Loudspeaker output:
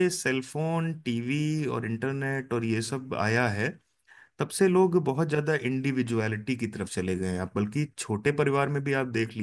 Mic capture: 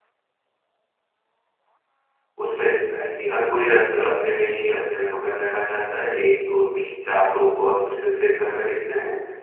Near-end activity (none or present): present